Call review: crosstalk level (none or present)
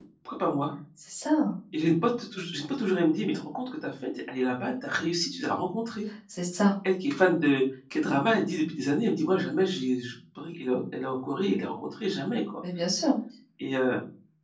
none